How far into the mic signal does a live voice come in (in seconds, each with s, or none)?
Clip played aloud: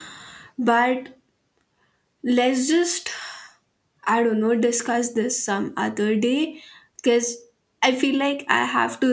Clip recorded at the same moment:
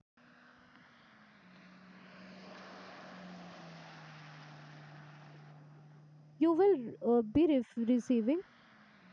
6.4 s